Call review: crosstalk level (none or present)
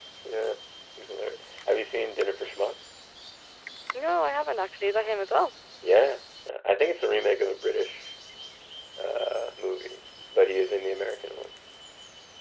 none